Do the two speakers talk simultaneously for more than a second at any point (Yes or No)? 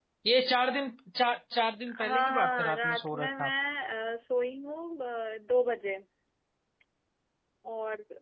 Yes